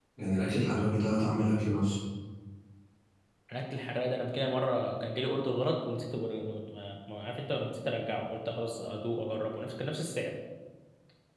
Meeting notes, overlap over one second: none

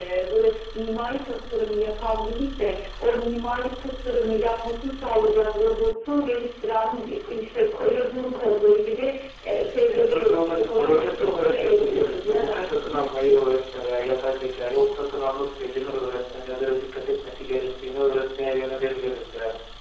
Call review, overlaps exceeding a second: present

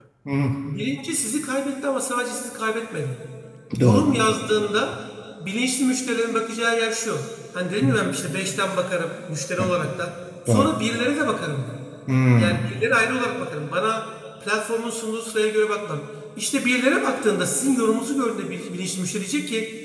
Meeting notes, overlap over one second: none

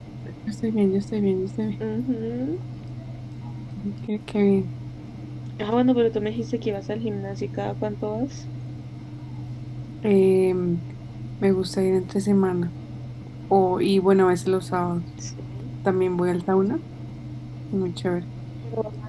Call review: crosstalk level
none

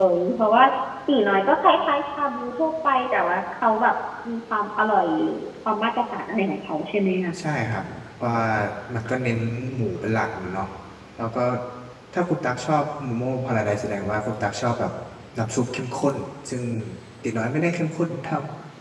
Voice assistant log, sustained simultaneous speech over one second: none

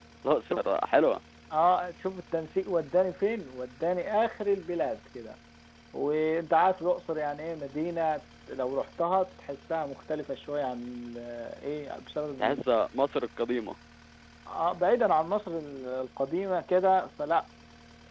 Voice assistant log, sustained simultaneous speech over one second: none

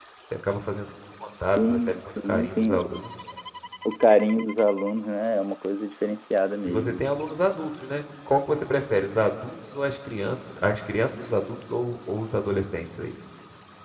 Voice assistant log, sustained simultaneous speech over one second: present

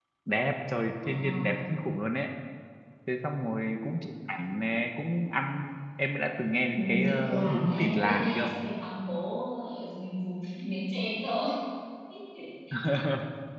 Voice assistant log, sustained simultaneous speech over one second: present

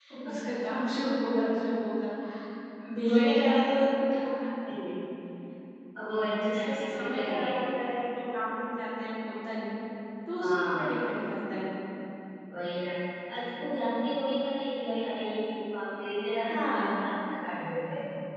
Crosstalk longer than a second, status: present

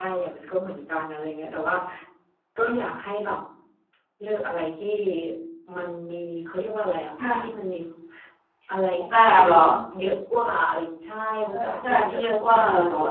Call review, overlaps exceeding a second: present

